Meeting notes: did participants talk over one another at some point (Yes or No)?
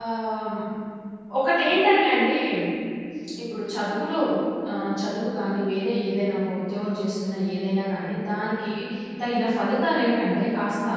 No